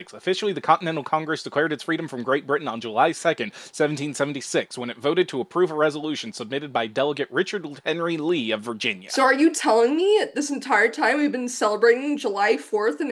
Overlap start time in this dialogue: none

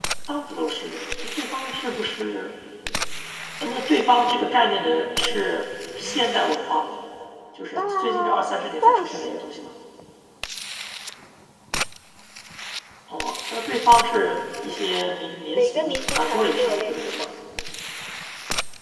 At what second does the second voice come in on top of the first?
7.7 s

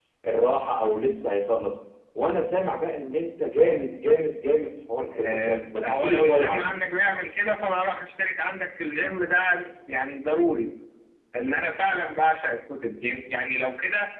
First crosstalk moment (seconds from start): 5.1 s

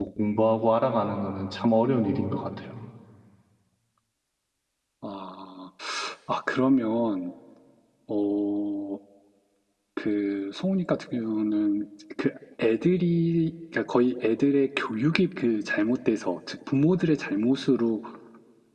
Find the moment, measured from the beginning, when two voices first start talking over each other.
none

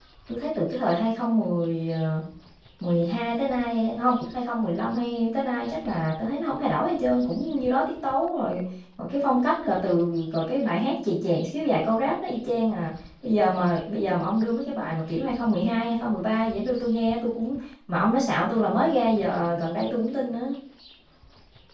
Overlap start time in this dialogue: none

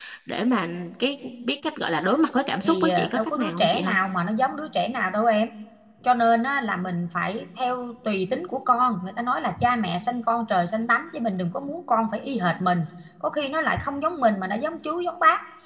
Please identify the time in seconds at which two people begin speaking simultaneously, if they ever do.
2.6 s

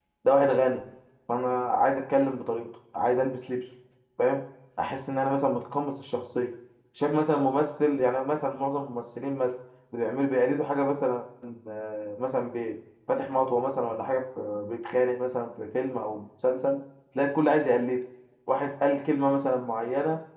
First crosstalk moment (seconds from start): none

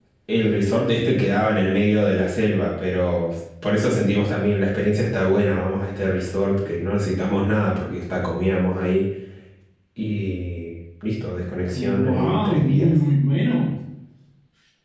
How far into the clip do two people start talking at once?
11.7 s

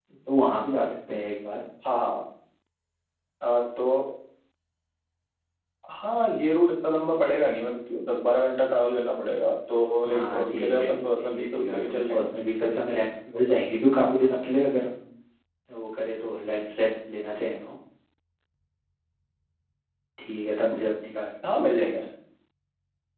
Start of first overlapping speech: 10.0 s

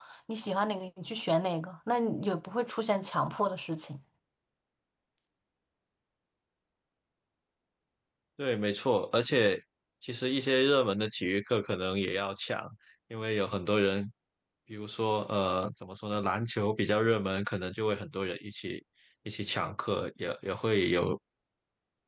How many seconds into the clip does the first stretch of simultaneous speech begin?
none

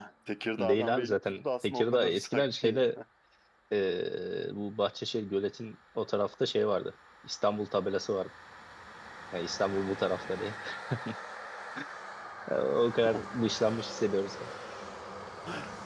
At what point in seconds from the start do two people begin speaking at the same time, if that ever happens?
0.6 s

